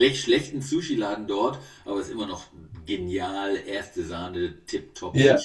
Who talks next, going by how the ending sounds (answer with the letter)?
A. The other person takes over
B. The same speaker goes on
A